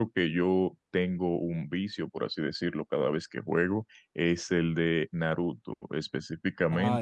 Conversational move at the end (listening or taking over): listening